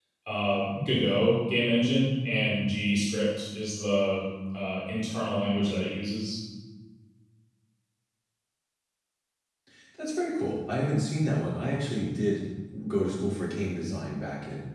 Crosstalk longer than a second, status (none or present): none